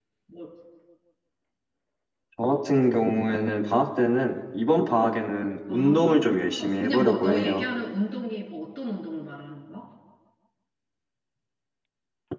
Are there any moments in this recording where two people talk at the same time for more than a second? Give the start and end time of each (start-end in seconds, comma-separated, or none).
5.7-7.7